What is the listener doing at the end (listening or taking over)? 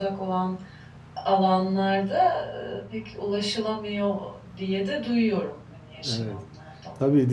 taking over